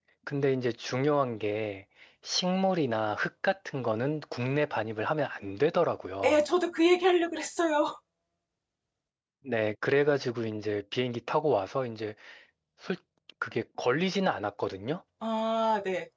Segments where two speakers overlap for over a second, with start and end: none

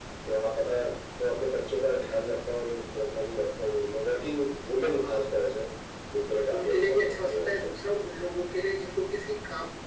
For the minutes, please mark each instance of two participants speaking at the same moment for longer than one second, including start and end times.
6.5-7.8

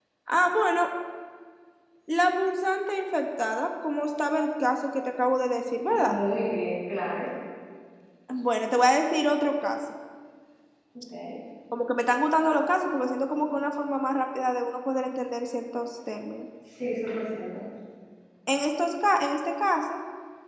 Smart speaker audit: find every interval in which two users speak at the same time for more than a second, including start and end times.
none

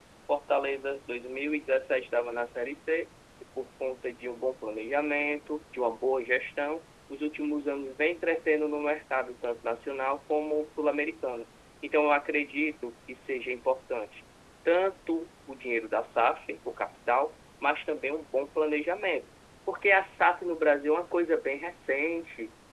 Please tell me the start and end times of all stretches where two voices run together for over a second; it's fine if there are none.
none

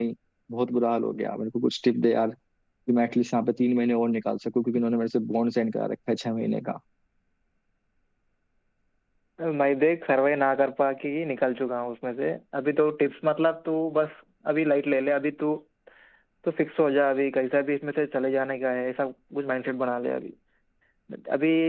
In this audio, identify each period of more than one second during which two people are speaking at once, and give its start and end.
none

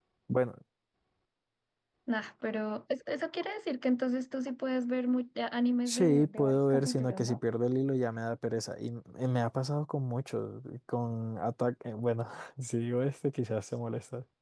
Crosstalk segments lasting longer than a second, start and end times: 5.9-7.4

